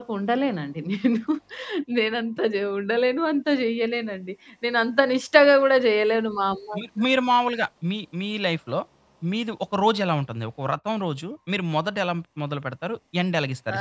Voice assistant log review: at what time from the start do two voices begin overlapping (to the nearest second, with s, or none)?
none